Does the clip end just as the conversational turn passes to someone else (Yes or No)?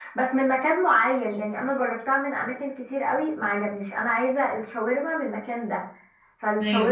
No